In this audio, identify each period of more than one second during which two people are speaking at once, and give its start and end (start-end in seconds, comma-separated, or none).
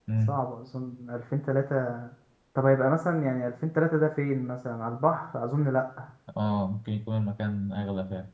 none